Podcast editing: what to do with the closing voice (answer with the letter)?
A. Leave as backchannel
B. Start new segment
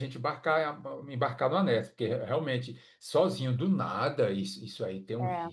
A